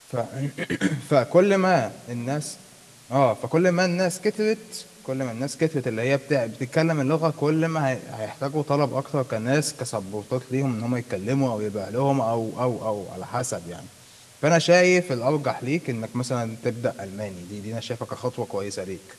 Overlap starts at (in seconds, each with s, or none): none